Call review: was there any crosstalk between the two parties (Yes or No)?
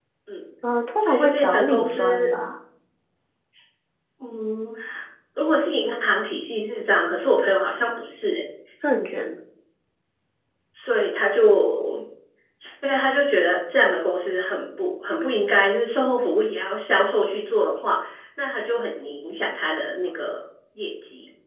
Yes